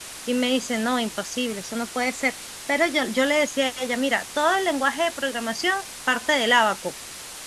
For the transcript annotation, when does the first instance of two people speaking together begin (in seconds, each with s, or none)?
none